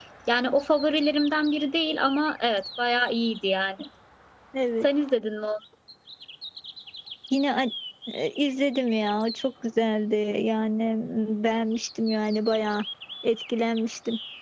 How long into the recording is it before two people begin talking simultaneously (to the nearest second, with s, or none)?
none